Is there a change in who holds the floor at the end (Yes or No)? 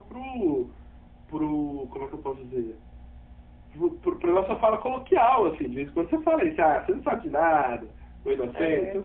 No